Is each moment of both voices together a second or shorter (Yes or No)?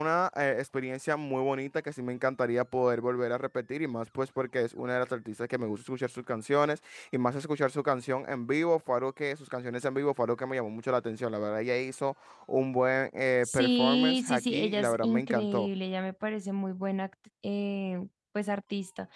No